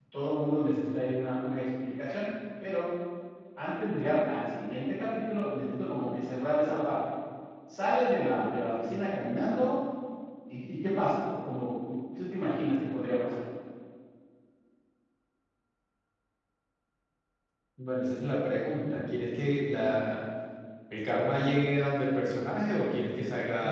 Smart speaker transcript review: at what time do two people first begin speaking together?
none

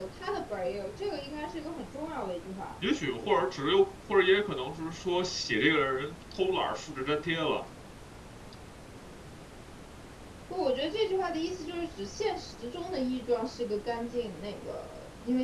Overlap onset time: none

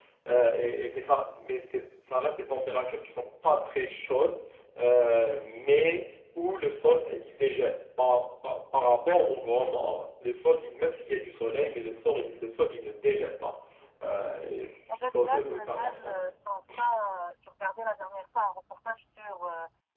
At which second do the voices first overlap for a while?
14.9 s

